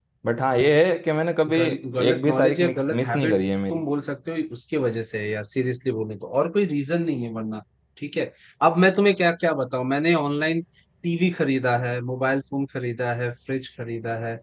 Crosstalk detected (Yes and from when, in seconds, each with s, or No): Yes, from 1.5 s